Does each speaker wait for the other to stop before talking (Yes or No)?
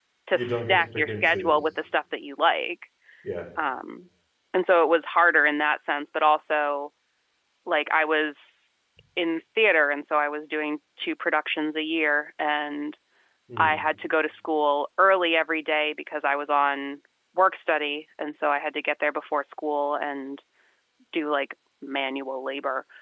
No